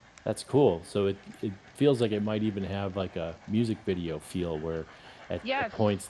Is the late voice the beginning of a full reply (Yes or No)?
No